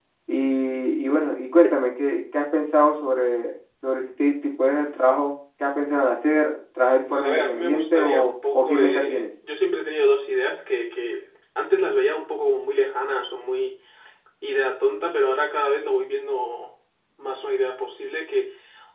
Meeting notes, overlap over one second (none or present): present